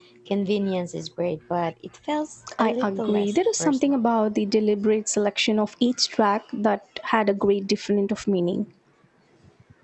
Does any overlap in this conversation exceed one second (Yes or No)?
Yes